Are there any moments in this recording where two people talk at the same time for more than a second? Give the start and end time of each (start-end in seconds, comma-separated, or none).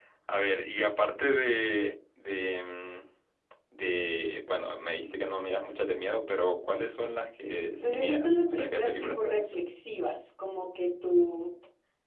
7.8-9.6